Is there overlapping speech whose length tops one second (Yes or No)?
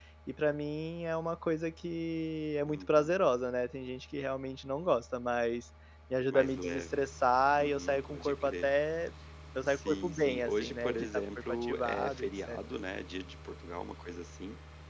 Yes